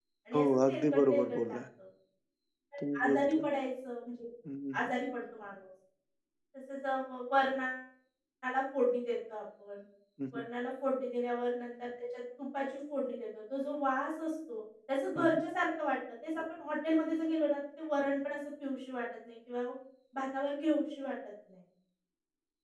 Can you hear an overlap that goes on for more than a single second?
Yes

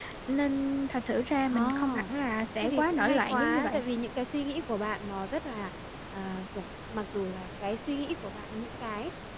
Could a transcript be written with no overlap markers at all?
No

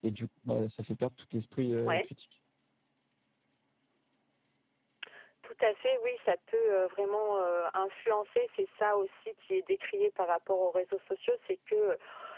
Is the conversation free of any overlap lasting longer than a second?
Yes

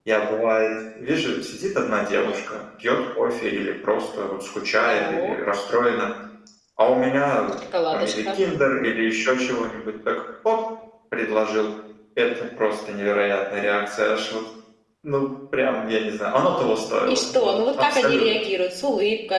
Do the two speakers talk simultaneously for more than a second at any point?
Yes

